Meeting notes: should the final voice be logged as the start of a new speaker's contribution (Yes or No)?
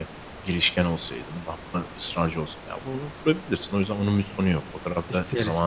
No